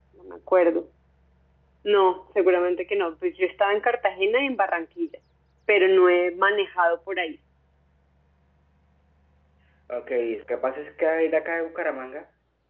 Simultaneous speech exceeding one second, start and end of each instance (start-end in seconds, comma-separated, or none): none